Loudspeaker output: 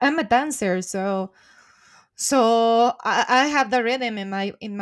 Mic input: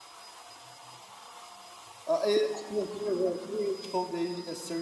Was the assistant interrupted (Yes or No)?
Yes